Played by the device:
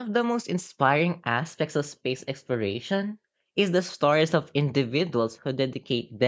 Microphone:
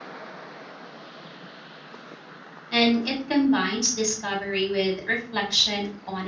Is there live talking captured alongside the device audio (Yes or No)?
Yes